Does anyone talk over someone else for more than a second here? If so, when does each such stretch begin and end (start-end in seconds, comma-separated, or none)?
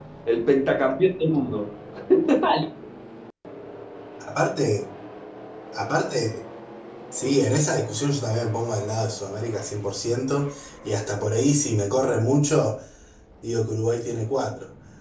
none